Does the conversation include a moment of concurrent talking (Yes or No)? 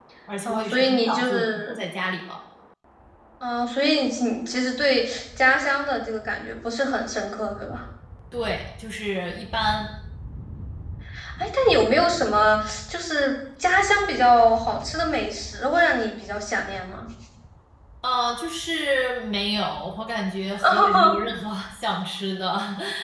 Yes